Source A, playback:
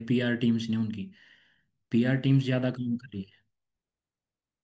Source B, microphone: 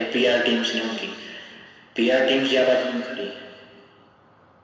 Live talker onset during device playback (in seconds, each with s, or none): none